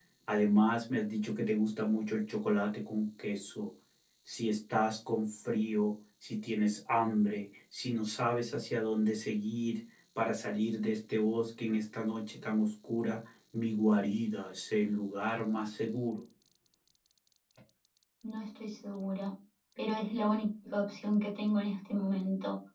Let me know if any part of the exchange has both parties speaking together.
No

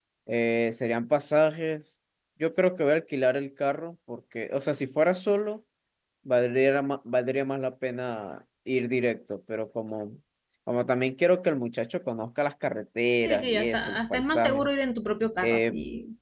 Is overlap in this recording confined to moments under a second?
No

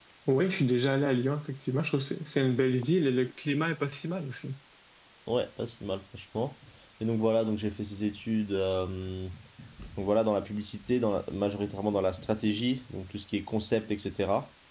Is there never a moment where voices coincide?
Yes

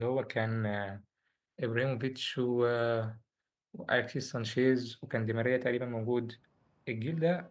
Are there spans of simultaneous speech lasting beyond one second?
No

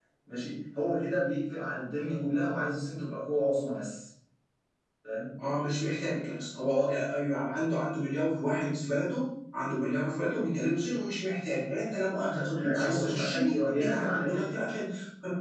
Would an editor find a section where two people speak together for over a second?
Yes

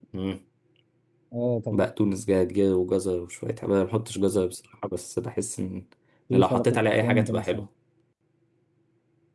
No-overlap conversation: No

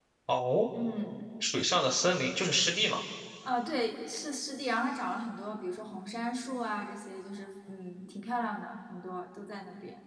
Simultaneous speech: No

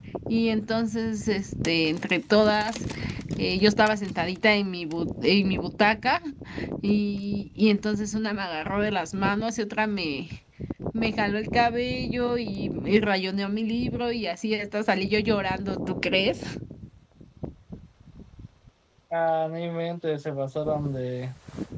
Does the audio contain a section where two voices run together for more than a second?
No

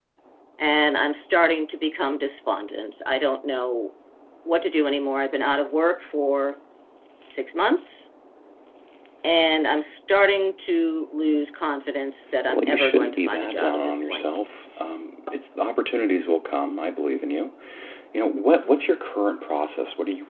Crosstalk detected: Yes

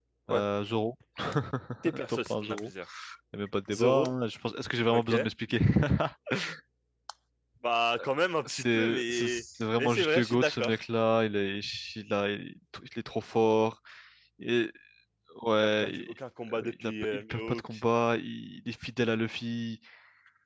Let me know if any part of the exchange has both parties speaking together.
Yes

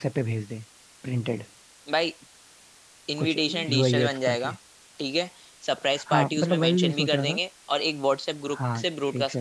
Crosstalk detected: Yes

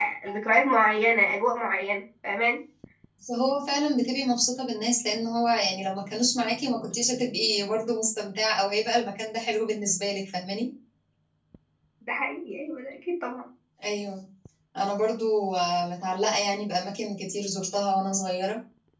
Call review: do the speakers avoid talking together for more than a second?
Yes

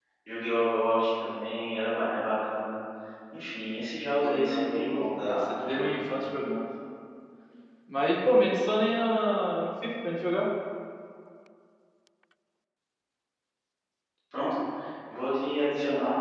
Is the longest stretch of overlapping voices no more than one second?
No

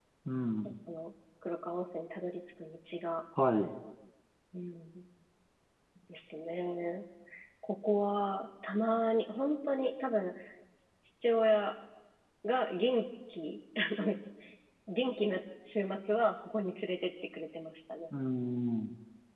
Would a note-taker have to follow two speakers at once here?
No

